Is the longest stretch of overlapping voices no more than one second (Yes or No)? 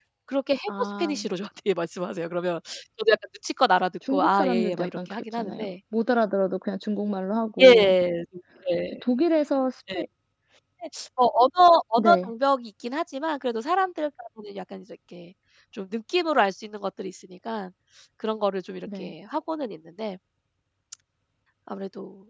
No